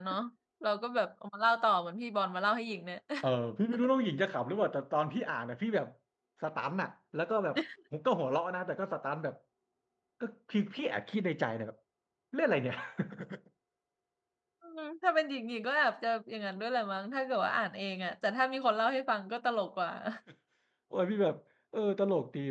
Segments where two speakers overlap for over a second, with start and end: none

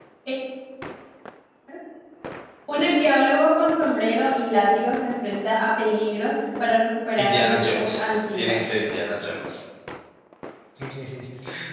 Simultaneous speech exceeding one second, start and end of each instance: 7.2-8.6

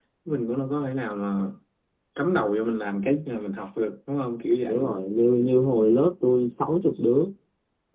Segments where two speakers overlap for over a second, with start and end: none

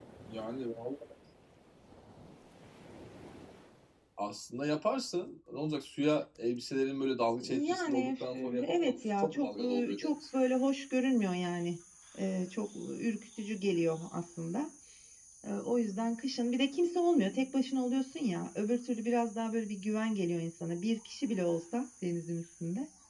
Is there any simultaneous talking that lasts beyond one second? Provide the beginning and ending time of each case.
7.4-10.2

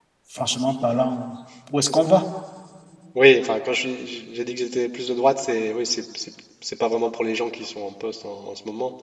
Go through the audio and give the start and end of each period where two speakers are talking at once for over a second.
none

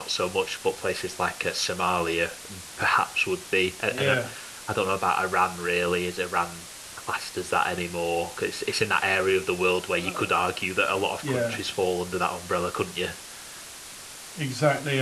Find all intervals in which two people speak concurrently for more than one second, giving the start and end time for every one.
none

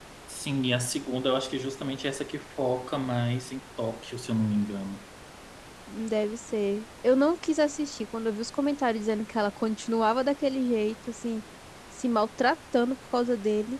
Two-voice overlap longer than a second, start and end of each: none

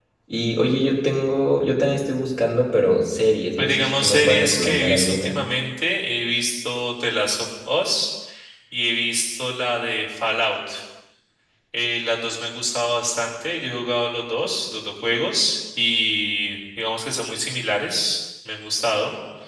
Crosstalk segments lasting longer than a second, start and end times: 3.6-5.4

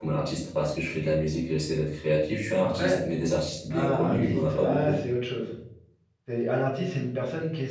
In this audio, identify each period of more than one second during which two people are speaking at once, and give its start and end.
3.7-5.0

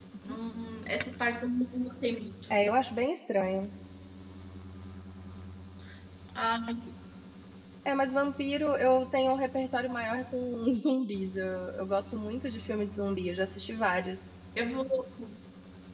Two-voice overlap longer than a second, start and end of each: none

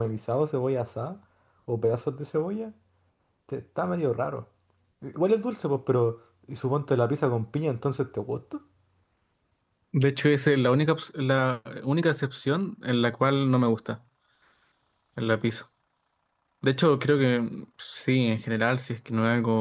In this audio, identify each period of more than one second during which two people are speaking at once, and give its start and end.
none

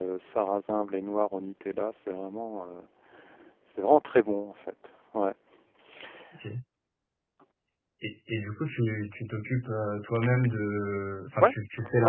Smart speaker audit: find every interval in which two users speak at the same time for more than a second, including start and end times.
none

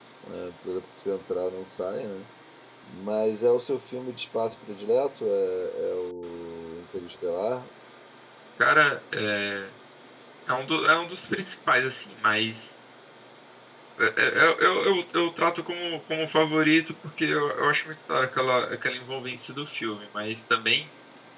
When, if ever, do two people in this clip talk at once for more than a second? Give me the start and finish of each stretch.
none

